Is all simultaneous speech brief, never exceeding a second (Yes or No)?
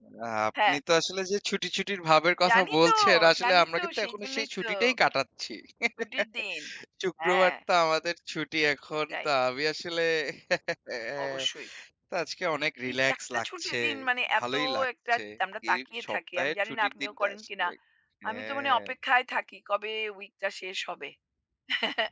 No